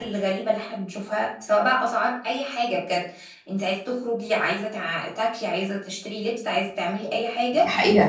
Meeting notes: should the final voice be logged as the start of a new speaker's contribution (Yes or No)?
Yes